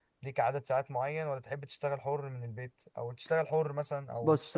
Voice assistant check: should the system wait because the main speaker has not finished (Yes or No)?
No